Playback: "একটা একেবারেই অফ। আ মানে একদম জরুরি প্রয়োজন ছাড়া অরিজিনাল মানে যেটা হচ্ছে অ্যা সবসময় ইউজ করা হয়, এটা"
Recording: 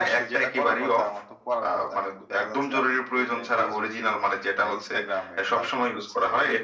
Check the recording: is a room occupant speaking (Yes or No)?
Yes